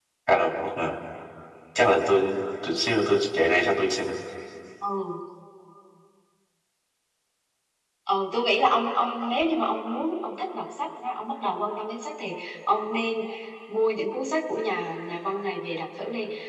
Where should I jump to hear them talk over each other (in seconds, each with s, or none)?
none